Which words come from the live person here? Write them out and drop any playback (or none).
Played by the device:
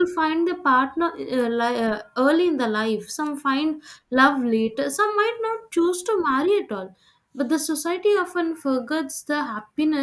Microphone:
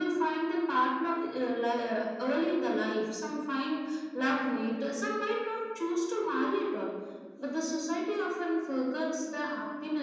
none